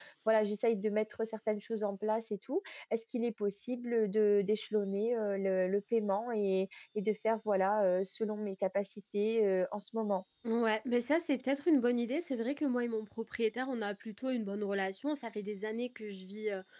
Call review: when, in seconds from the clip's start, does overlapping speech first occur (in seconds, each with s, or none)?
none